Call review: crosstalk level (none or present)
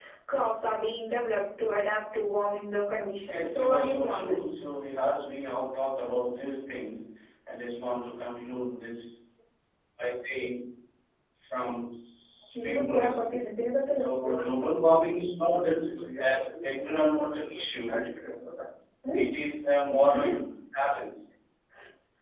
present